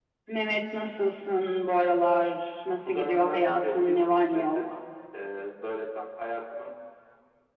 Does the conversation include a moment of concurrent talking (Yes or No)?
Yes